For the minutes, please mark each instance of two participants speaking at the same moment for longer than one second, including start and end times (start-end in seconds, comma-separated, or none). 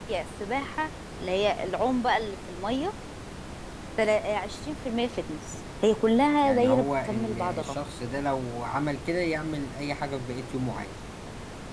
6.4-7.8